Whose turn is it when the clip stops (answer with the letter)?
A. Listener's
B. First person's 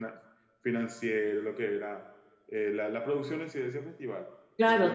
A